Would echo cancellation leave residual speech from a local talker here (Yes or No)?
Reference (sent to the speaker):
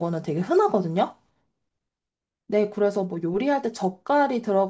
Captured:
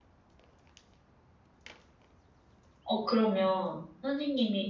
Yes